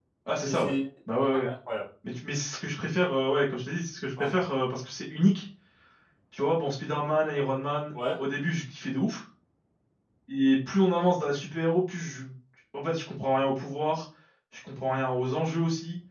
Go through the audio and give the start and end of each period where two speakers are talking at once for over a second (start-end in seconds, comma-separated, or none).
none